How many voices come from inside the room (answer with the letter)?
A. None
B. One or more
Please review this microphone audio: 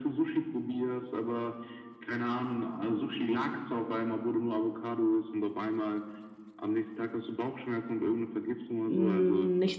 B